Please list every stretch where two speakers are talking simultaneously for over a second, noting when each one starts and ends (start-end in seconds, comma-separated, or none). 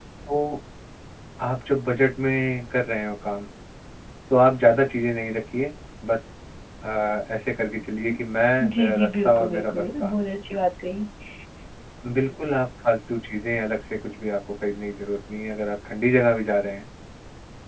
8.6-10.1